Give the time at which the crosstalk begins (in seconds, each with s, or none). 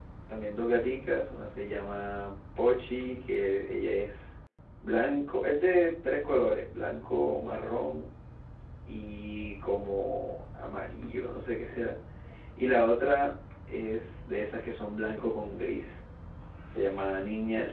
none